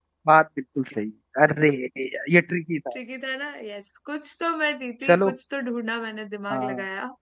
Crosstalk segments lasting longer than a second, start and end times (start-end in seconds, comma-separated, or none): none